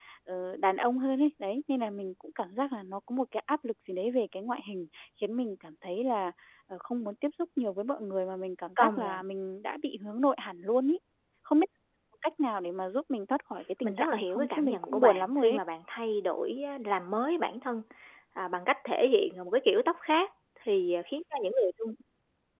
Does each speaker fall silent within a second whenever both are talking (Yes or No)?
No